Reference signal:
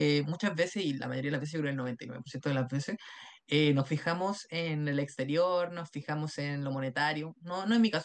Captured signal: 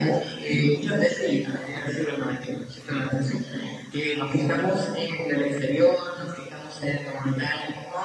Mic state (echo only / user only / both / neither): echo only